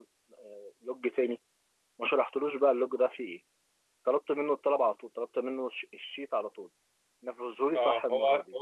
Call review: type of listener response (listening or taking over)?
taking over